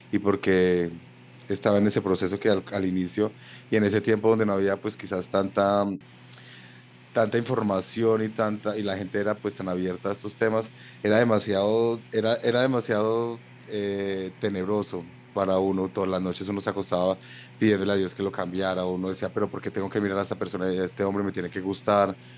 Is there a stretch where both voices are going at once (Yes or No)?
No